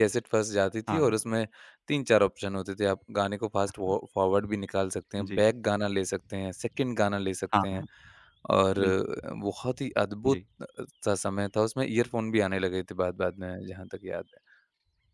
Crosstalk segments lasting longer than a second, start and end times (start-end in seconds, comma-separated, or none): none